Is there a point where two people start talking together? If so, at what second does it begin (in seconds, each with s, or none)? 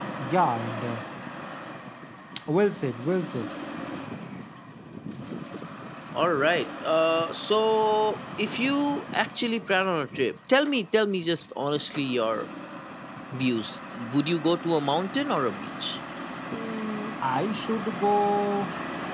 none